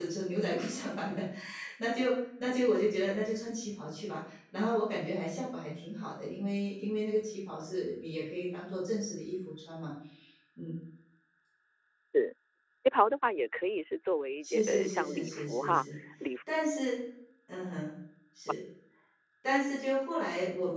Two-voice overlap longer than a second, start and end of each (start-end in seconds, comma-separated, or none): 14.4-15.8